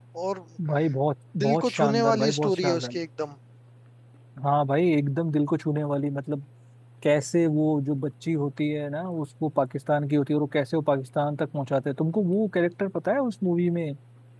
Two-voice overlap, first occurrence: 1.4 s

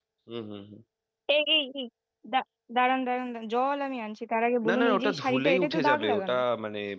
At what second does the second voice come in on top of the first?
4.6 s

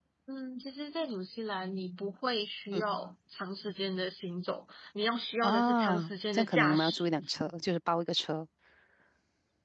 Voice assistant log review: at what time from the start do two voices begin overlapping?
5.4 s

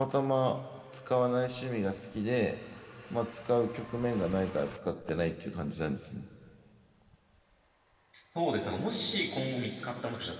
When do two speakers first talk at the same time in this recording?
none

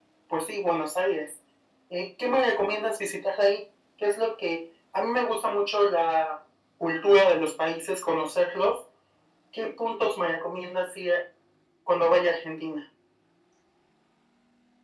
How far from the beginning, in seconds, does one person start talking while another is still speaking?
none

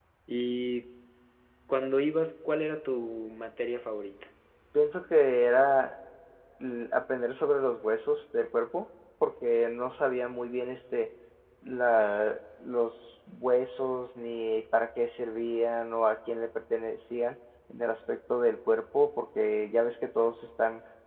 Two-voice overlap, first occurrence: none

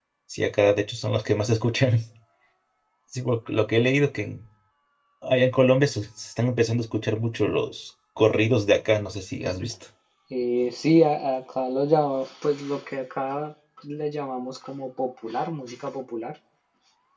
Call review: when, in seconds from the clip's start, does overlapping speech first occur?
none

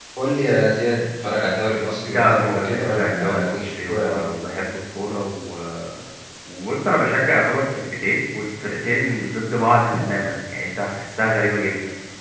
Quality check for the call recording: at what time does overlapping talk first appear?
2.0 s

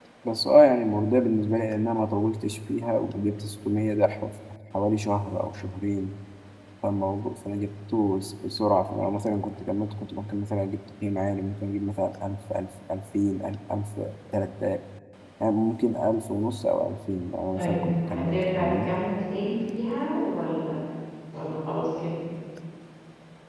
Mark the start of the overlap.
17.5 s

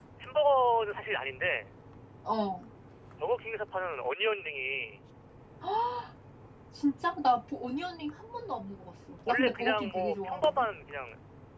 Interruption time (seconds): 9.3 s

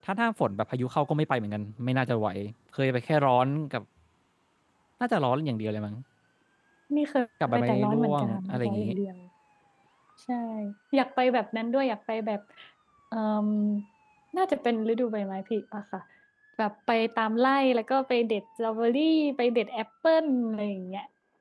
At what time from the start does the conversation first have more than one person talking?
7.5 s

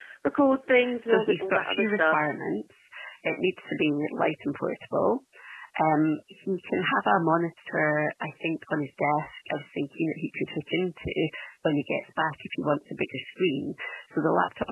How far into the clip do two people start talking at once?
1.0 s

